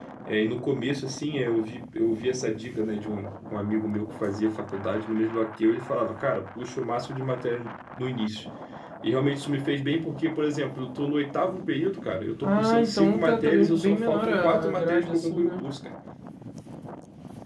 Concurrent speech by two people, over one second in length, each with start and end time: 12.4-15.7

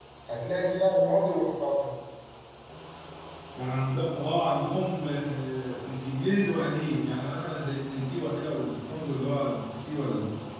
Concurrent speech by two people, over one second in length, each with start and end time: none

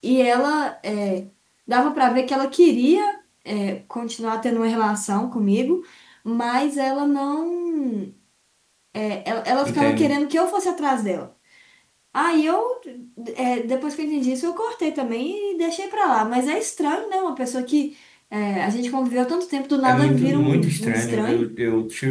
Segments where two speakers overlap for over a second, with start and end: 19.8-21.5

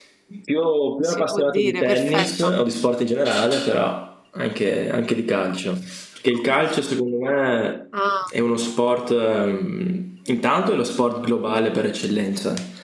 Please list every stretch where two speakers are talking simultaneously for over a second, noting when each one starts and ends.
1.0-2.5

